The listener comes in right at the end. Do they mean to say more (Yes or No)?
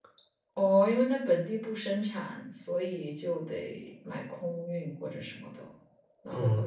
Yes